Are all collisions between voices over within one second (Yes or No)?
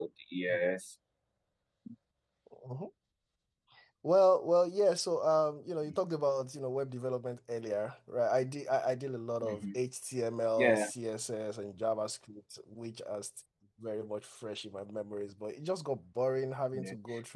Yes